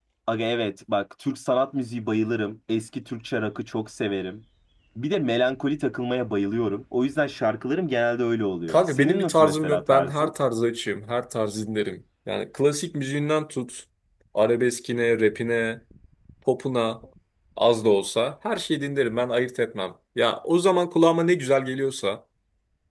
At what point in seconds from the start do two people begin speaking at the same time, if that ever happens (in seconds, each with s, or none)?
8.7 s